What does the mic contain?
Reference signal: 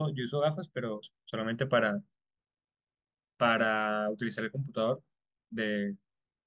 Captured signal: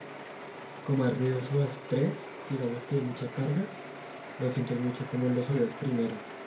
user only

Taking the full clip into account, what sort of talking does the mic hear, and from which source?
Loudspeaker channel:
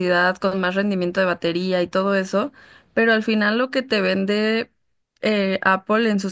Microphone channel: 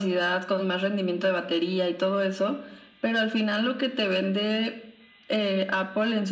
echo only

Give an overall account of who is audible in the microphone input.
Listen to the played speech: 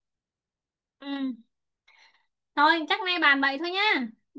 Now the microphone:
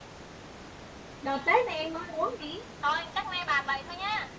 both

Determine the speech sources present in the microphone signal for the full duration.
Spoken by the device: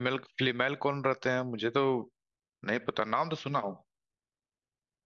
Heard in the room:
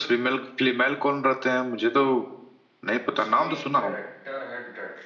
both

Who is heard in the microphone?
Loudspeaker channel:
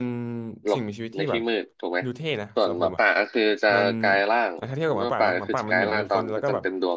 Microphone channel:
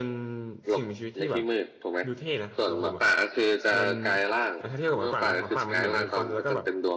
echo only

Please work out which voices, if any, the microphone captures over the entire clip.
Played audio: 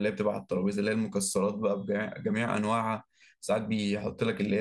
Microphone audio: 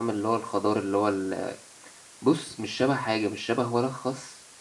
user only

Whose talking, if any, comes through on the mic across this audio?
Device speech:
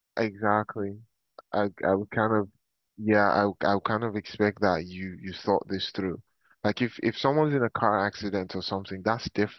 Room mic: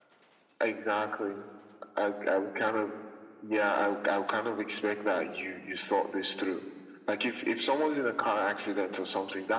echo only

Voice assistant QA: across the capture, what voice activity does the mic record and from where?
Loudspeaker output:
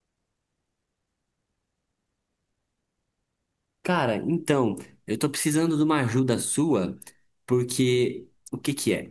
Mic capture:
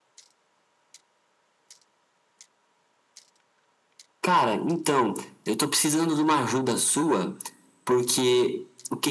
echo only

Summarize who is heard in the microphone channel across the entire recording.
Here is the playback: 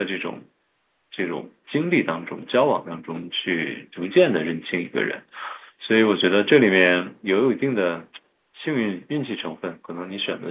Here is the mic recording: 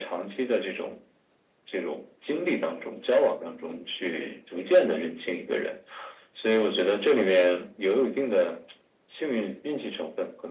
echo only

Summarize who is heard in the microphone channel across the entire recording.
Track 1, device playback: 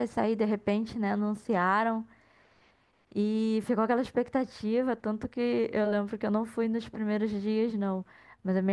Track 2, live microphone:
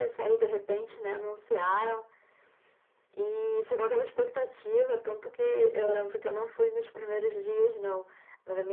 echo only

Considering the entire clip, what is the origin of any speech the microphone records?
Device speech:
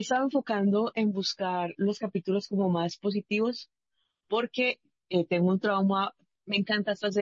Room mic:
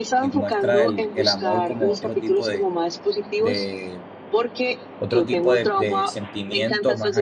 both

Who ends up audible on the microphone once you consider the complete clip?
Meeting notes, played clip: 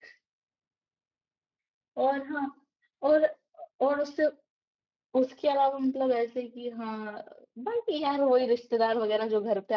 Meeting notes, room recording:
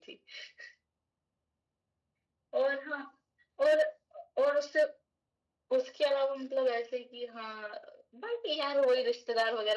echo only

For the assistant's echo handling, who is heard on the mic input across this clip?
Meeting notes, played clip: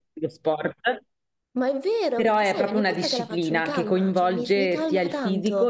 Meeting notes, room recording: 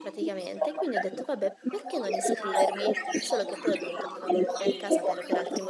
both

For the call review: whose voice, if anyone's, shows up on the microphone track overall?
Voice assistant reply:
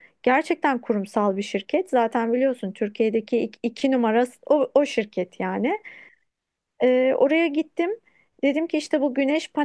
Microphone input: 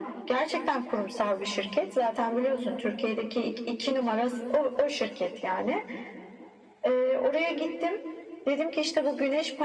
echo only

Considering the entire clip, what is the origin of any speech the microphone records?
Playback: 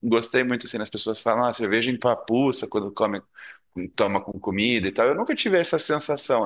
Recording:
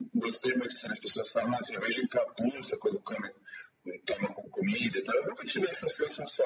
echo only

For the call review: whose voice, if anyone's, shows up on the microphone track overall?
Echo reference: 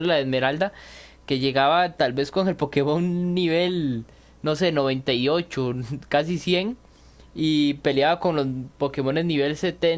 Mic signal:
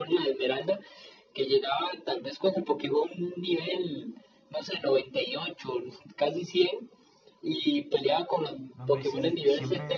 both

